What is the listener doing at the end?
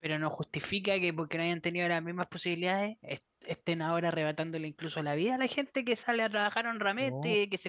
listening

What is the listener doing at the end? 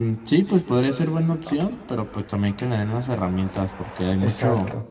listening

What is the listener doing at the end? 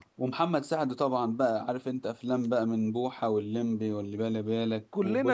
taking over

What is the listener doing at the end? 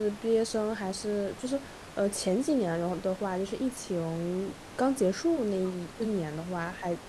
listening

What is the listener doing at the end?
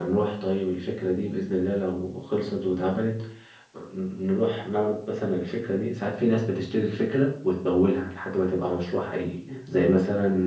listening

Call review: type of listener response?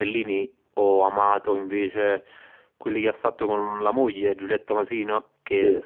listening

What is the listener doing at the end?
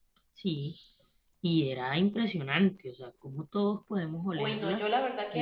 taking over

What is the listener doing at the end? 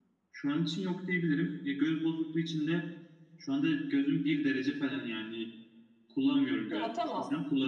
listening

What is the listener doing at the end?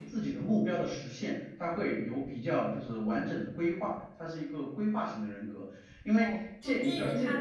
taking over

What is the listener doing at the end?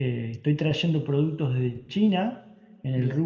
listening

